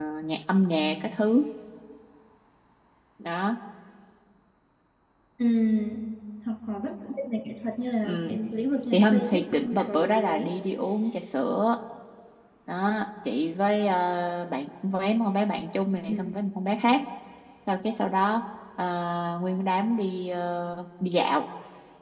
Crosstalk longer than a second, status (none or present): present